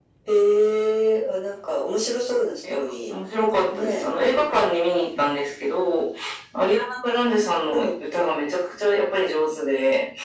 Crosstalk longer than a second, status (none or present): none